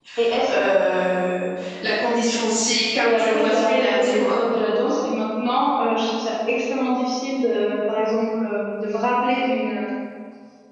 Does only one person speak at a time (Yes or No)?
No